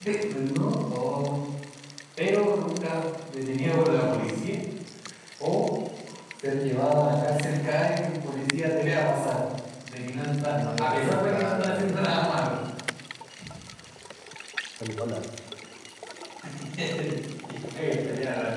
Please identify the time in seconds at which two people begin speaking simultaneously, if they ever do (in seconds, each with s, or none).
10.4 s